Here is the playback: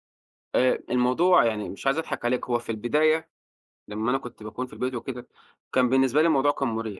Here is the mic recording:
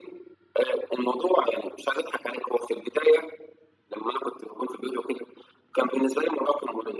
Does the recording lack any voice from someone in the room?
Yes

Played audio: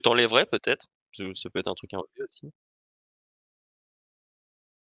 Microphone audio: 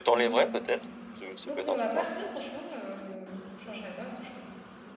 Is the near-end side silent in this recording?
No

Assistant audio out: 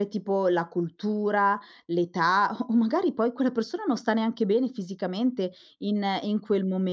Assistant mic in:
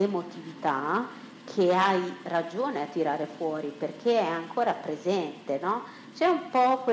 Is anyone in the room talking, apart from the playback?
Yes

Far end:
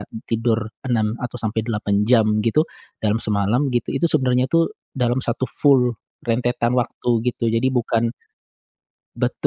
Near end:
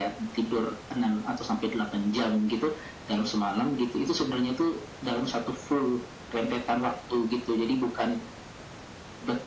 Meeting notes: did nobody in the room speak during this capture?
Yes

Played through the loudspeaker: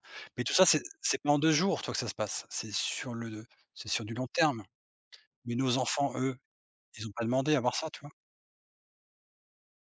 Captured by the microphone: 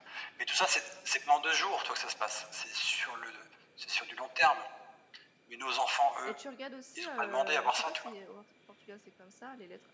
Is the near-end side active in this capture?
Yes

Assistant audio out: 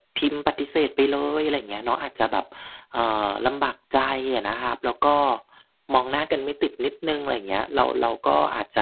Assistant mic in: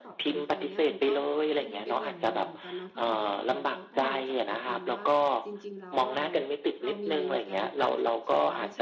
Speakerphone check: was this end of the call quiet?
No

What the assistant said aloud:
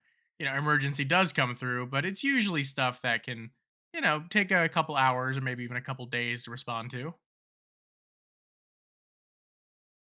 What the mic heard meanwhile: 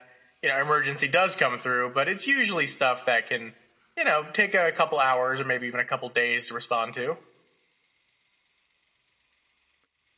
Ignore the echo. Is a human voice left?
No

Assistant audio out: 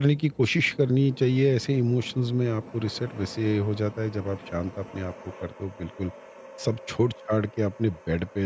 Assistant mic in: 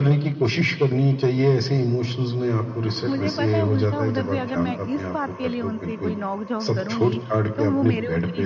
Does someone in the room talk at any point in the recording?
Yes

